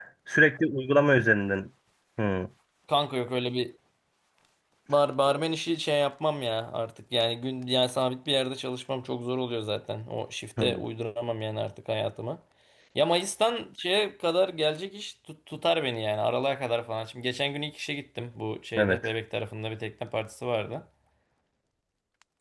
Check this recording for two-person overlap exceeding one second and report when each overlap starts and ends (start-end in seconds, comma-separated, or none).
none